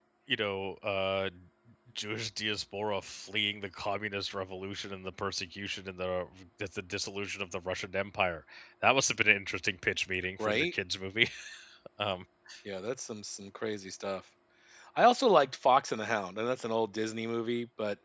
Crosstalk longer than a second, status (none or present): none